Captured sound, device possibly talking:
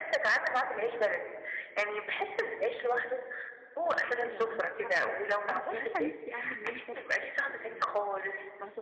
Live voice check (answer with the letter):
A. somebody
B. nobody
A